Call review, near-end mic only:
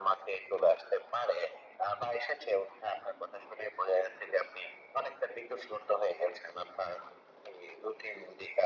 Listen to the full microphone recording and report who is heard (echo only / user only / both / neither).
echo only